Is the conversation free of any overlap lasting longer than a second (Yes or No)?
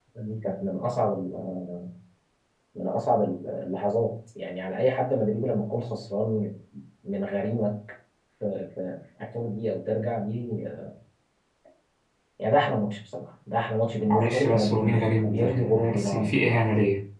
No